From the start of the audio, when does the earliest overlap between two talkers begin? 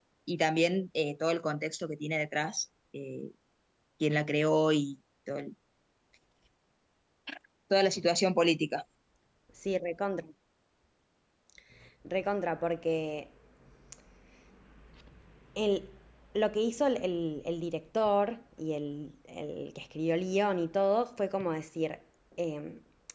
none

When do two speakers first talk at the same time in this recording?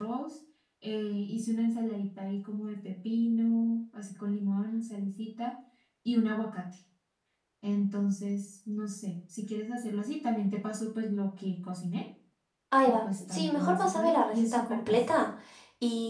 13 s

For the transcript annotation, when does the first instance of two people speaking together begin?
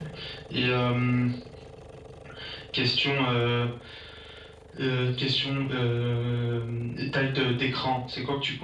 none

